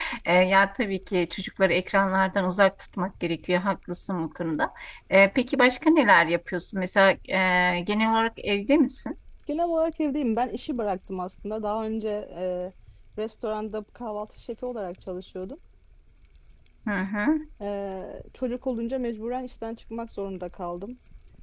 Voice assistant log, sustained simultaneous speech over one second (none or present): none